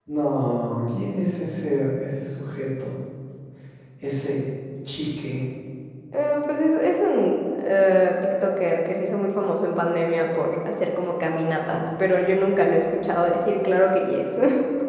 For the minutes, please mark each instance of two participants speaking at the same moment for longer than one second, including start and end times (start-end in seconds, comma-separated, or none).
none